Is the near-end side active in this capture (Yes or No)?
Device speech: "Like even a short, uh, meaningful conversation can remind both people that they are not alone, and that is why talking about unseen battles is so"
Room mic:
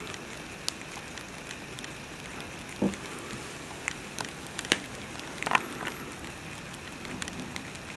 No